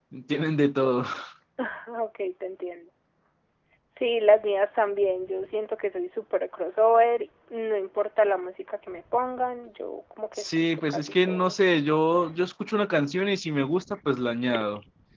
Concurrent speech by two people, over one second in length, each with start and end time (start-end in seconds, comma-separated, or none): 10.4-11.6